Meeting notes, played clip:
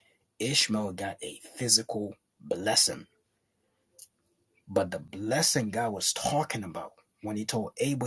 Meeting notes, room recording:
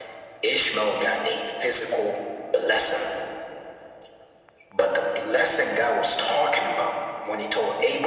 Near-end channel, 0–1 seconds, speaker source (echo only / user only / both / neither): echo only